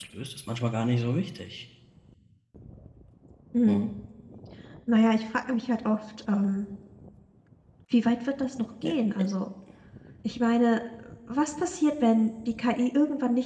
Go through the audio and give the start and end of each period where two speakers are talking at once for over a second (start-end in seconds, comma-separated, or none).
none